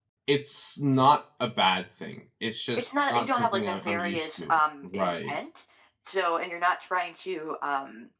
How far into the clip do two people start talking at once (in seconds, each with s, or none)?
2.8 s